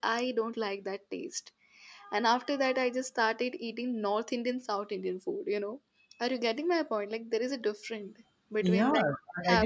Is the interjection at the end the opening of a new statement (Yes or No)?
Yes